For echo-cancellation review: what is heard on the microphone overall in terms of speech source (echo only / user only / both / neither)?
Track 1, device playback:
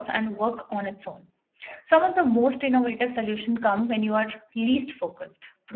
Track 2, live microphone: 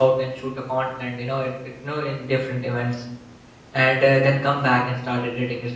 user only